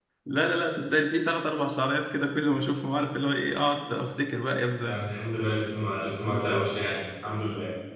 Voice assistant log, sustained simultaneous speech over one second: none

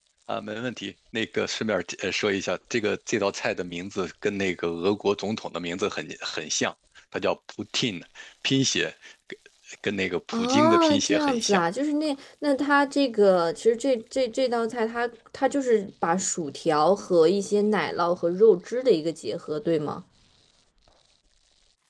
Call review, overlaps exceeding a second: present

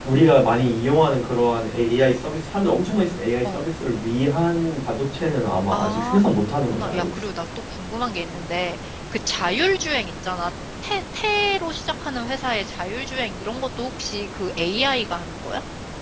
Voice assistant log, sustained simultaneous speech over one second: present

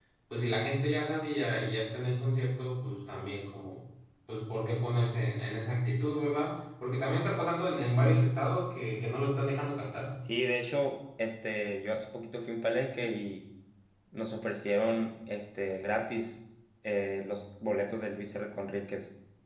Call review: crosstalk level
none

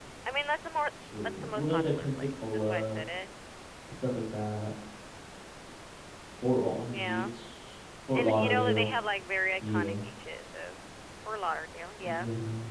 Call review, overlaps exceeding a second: present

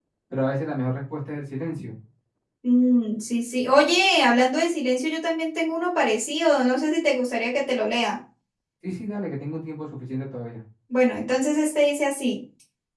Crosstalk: none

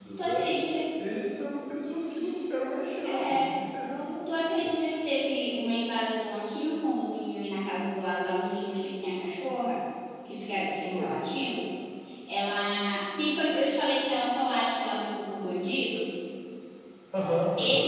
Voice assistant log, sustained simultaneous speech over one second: none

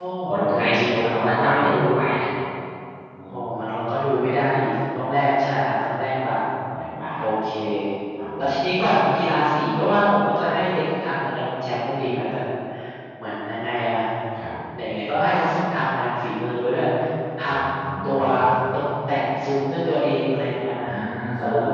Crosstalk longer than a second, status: present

